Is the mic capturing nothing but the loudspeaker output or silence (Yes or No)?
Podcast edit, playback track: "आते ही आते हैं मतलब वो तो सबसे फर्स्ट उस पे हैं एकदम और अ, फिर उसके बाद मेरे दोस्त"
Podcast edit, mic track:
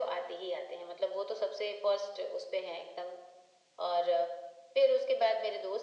Yes